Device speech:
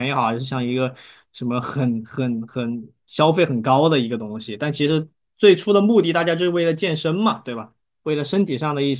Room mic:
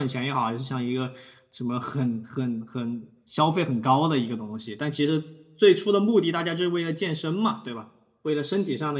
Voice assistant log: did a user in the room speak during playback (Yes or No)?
No